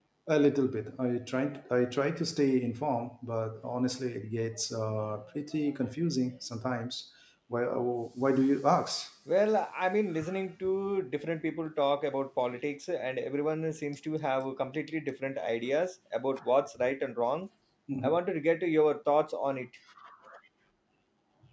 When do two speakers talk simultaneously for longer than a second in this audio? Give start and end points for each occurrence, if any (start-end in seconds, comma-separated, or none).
none